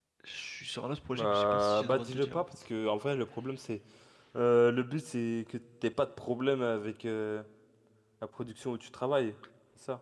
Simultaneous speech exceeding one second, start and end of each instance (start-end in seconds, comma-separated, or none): 1.1-2.4